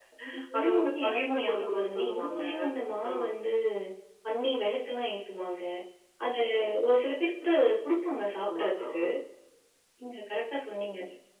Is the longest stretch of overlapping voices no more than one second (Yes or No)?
No